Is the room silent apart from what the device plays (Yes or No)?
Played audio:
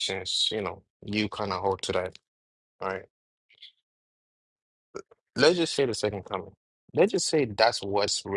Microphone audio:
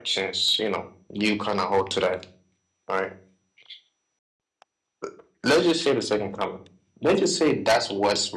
Yes